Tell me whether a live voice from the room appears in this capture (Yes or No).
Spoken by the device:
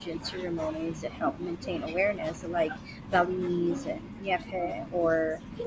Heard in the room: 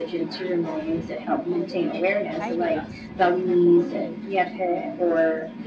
Yes